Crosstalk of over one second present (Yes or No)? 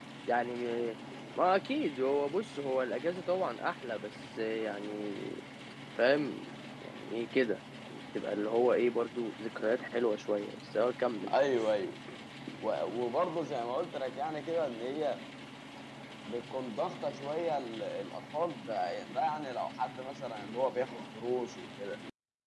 No